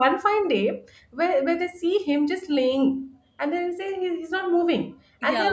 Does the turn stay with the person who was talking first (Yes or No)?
Yes